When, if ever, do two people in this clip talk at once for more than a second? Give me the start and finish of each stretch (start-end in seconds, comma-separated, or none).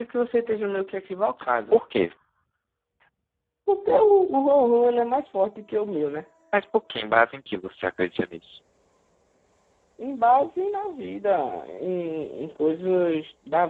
none